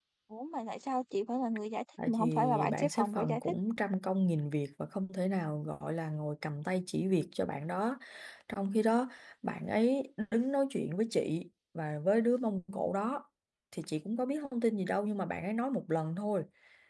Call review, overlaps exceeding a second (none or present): present